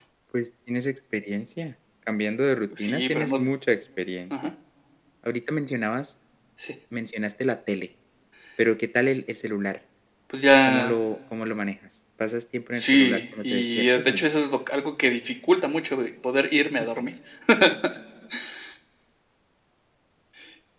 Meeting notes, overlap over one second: present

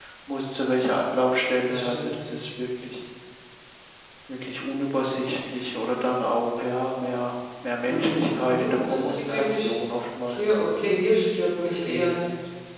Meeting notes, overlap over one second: present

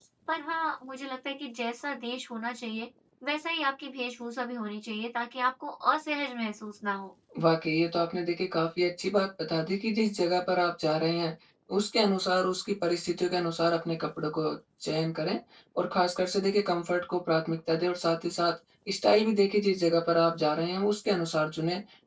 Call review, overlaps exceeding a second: none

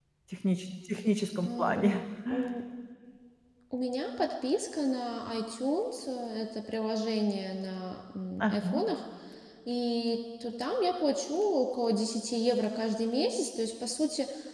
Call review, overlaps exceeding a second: none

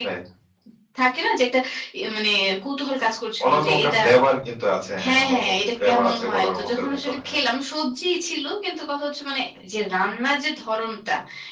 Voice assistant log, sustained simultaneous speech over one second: present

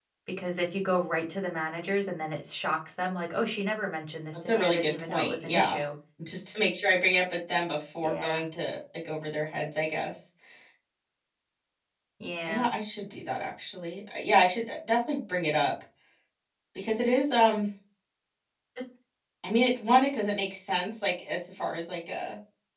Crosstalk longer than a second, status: present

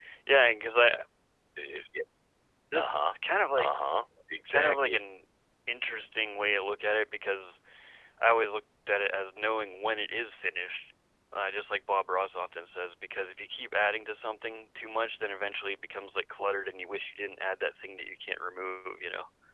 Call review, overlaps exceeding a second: none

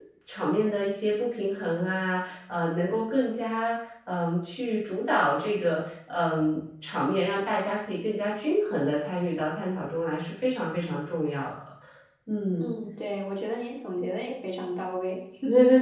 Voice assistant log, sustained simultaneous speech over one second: none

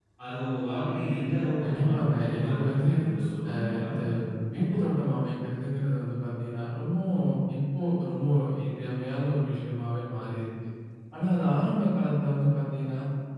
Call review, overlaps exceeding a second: present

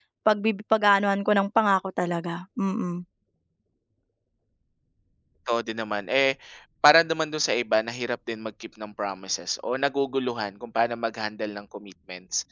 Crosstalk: none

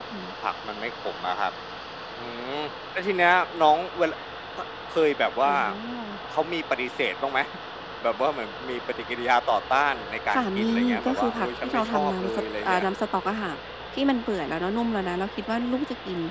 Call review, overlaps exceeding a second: present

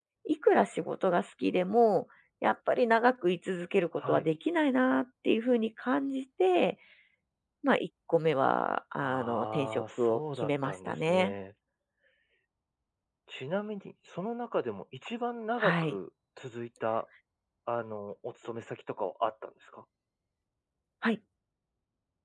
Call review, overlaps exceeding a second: present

